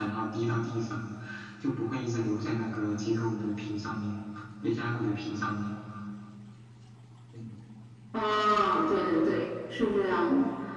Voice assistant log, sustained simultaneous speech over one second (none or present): none